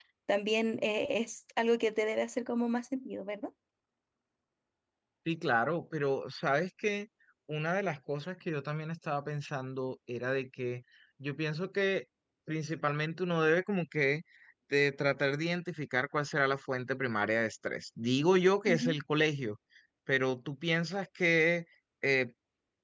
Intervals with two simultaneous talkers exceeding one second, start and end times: none

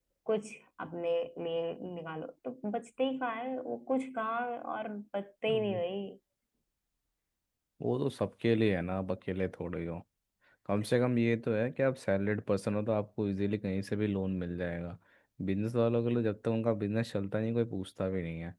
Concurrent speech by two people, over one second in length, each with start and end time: none

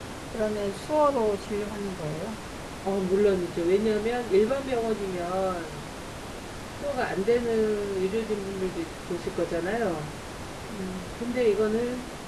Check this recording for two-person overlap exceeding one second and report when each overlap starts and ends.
none

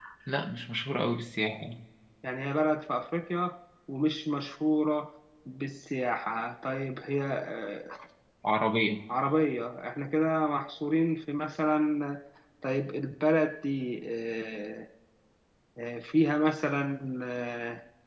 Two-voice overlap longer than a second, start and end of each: none

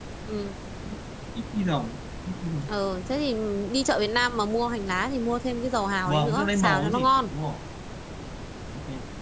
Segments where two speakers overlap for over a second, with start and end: 6.1-7.3

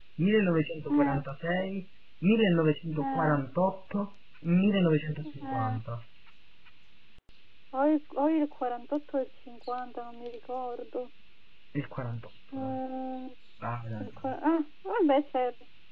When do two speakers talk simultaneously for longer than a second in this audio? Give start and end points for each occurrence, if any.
none

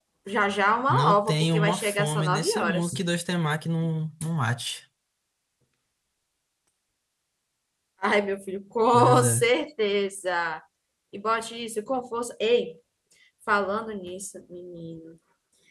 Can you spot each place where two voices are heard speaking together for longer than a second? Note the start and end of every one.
0.9-2.9

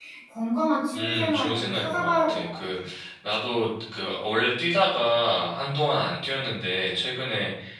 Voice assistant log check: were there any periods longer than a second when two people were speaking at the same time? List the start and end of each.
0.9-2.6

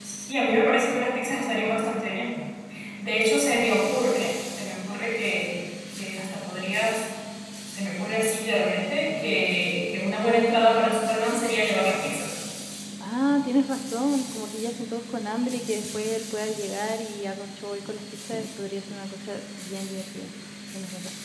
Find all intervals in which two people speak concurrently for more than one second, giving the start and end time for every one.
none

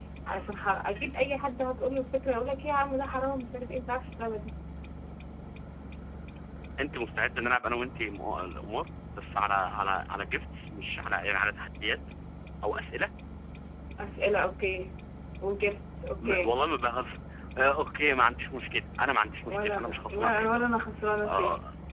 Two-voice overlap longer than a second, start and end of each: 19.5-20.7

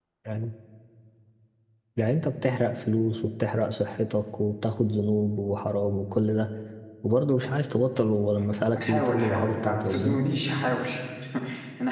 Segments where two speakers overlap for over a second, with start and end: 8.8-10.2

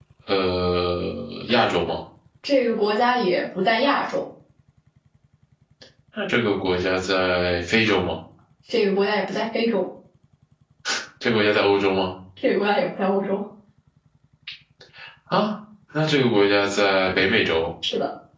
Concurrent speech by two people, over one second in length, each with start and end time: none

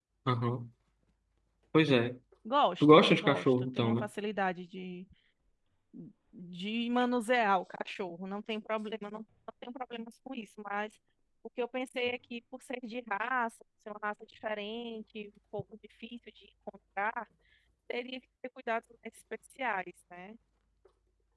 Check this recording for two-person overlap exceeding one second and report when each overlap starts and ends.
2.8-4.1

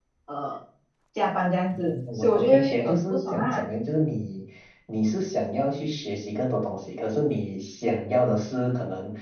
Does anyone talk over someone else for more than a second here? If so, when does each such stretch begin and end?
1.8-3.6

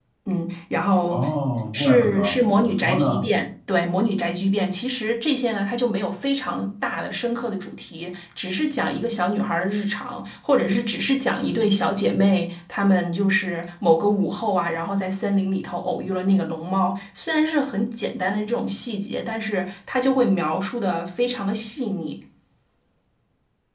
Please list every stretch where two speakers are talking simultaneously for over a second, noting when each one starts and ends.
1.7-3.3

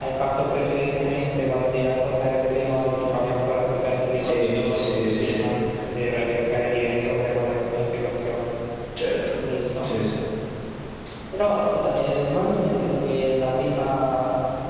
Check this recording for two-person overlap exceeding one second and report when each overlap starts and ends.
4.2-5.4

